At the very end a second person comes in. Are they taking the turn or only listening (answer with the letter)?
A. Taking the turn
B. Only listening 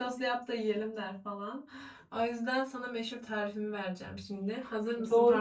A